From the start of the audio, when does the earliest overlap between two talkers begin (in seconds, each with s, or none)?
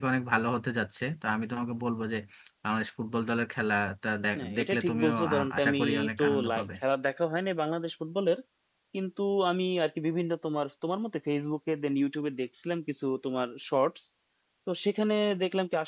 4.3 s